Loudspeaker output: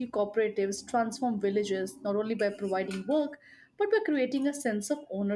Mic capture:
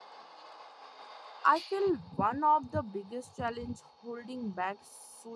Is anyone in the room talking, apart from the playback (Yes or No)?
Yes